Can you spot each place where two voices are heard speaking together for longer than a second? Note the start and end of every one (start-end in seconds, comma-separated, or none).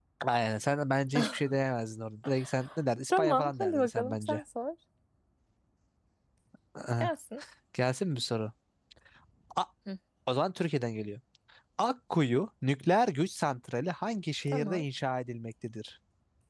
3.1-4.4